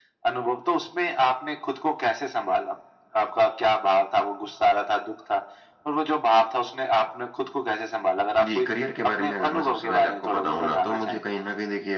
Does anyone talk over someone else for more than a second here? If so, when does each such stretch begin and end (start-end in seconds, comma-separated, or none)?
9.0-11.2